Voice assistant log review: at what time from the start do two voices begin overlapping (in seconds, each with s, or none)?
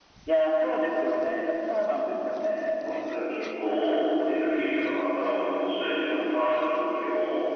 none